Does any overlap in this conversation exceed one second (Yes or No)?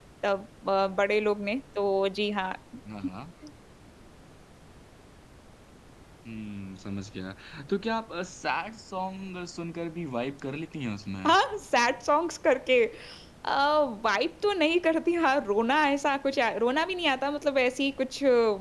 No